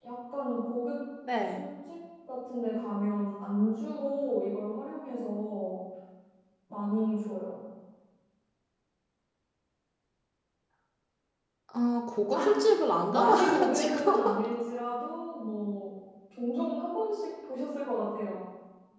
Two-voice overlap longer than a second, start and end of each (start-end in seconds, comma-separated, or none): 13.1-14.4